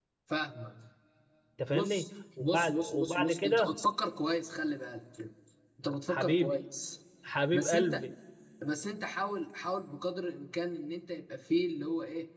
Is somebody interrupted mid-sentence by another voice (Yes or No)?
Yes